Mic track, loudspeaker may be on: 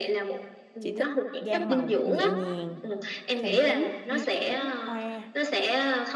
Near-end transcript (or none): chị thích gam màu nhẹ nhàng, trầm tính như kiểu hoa